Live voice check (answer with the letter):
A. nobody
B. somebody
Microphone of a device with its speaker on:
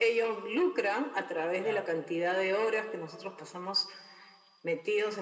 B